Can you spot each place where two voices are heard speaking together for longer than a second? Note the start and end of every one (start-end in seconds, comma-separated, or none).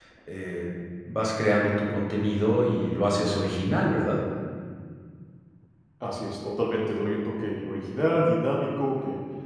none